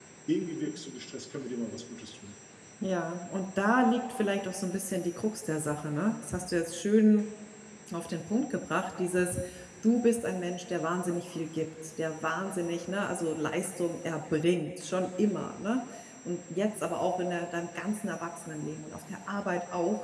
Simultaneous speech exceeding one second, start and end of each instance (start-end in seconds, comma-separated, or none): none